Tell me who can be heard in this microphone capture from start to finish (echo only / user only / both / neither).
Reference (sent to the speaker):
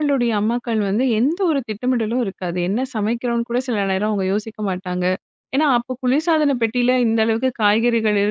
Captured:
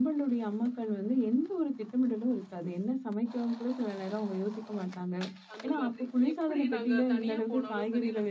both